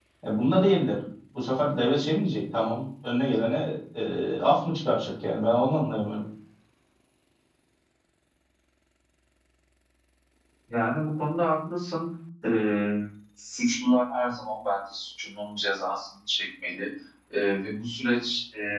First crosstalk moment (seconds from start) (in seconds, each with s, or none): none